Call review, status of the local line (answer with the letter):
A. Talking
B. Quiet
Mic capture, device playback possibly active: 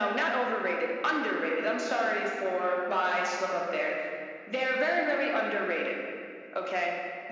B